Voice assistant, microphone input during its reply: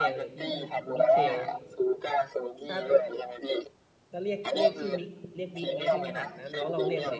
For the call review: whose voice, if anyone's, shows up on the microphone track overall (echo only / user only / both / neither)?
both